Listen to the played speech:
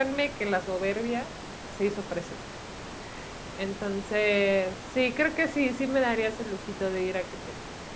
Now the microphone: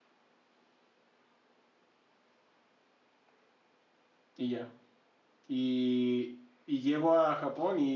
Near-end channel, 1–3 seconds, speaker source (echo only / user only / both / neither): neither